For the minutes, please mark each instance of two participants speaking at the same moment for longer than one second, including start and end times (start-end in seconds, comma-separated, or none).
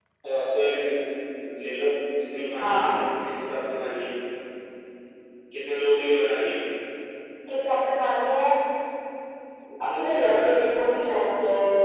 10.0-11.2